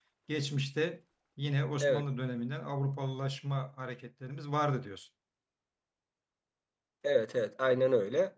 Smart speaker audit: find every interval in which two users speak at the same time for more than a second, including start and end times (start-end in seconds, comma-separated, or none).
none